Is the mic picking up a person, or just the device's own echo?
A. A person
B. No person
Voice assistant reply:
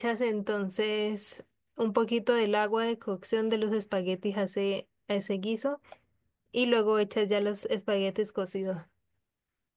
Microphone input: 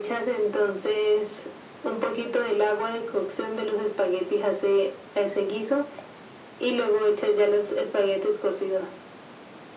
B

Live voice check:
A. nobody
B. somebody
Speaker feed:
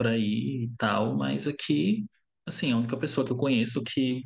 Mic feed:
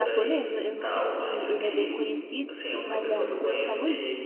B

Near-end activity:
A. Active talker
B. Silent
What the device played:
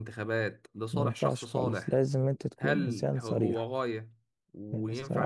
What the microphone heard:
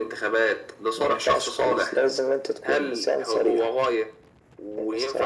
B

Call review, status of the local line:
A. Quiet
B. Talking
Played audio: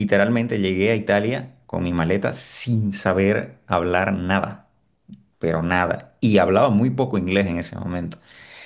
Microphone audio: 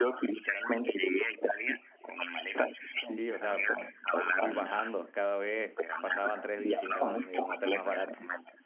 B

